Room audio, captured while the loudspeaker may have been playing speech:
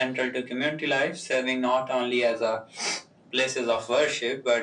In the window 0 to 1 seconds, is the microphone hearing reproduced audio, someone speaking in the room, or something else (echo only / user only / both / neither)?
echo only